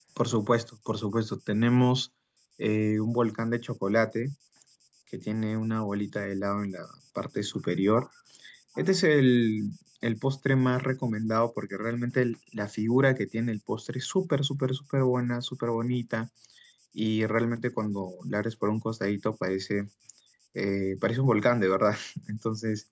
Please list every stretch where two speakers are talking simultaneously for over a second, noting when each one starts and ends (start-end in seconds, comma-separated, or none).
none